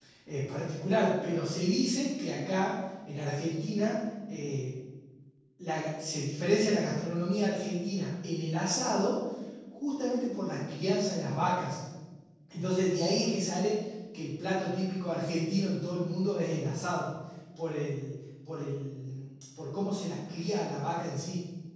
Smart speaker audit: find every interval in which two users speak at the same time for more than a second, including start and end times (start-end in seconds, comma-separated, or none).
none